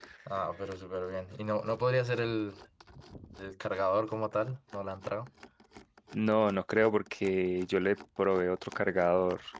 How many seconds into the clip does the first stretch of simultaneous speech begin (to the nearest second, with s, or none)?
none